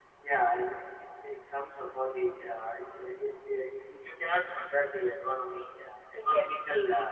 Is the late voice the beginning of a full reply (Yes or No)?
No